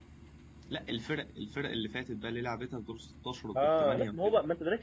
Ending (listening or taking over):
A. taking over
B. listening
A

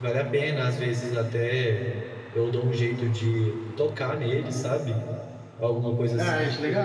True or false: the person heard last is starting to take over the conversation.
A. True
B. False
A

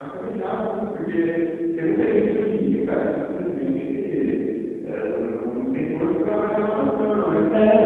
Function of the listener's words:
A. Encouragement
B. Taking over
A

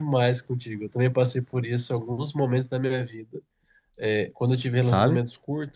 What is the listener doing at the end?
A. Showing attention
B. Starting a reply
A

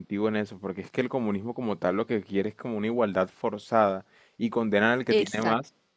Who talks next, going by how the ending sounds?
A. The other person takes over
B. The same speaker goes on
B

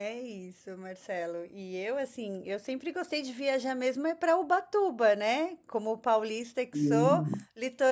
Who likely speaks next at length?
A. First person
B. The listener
A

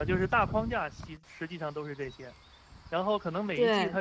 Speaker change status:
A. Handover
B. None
B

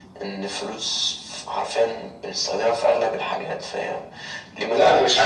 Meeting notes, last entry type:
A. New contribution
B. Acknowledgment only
A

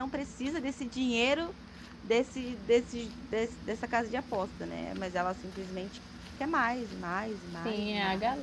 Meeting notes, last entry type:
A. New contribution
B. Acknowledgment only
A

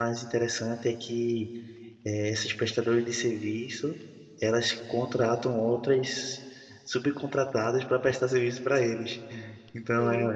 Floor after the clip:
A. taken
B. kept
B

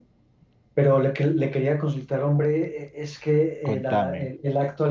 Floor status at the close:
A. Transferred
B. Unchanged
B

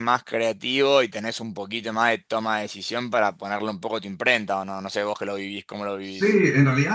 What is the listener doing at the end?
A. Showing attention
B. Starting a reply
B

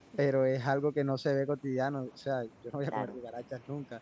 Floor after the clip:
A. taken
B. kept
B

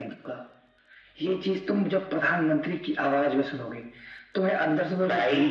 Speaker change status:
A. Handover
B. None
A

